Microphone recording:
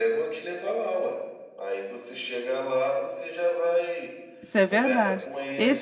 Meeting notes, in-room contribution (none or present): present